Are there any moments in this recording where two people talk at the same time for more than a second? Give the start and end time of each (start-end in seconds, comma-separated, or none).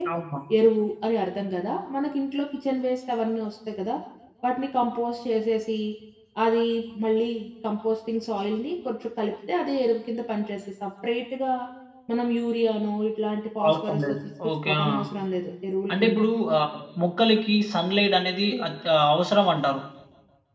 13.7-14.9